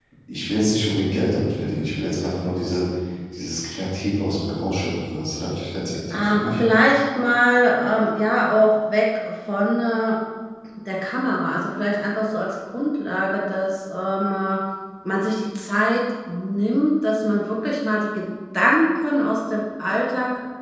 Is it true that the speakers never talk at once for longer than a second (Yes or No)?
Yes